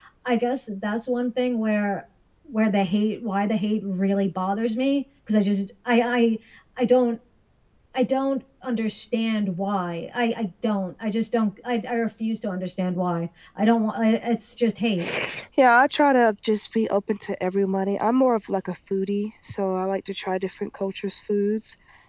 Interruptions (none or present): none